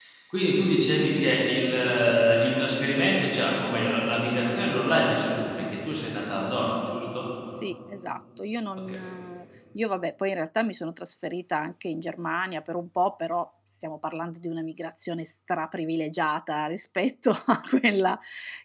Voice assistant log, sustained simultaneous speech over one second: none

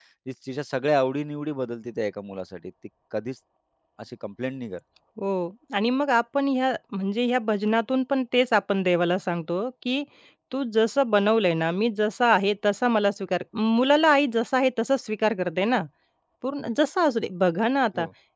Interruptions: none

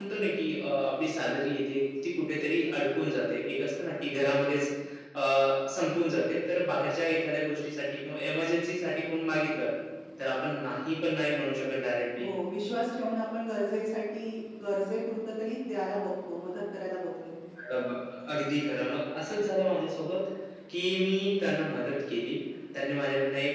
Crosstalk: none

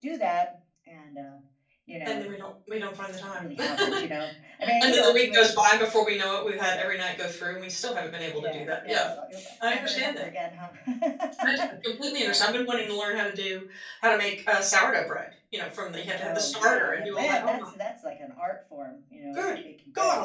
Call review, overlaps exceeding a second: present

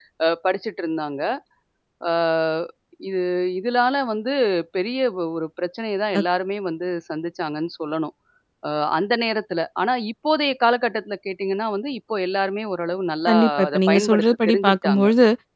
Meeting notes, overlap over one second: present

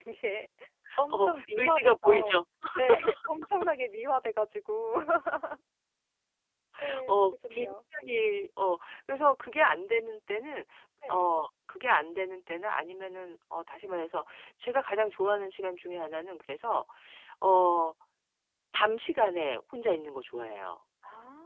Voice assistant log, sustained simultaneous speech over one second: present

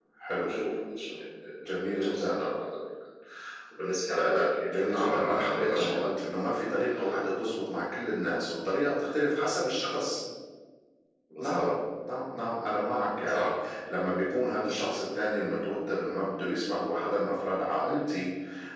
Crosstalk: present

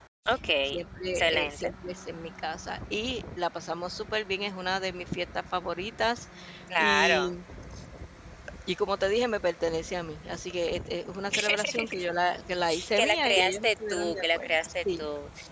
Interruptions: present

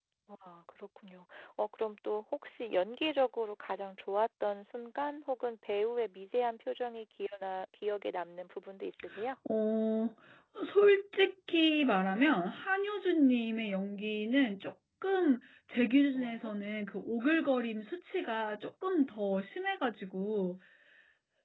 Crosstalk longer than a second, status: none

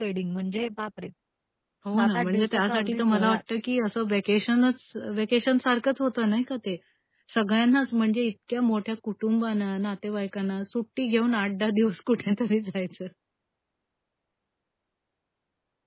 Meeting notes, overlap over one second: present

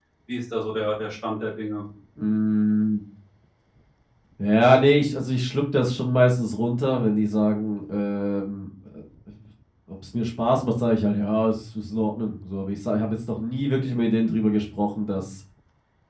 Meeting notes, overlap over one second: none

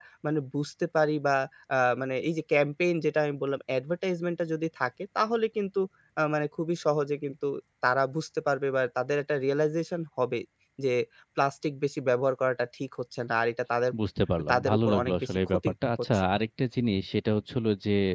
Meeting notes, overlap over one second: present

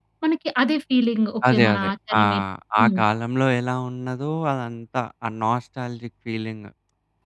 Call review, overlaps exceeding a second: none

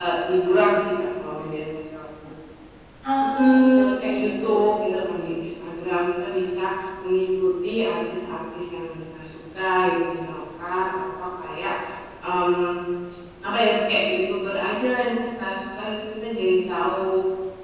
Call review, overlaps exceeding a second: present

